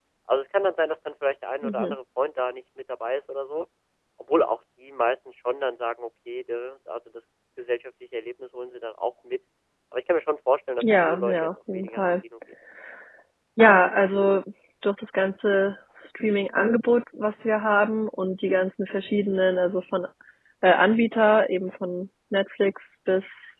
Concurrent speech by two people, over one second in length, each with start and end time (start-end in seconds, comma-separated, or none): 10.8-12.0